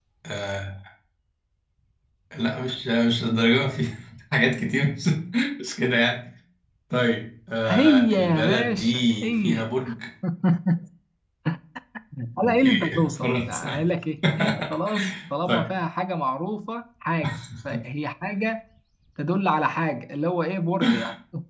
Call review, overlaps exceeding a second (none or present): present